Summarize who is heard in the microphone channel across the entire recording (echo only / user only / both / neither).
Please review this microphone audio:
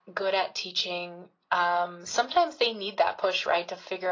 echo only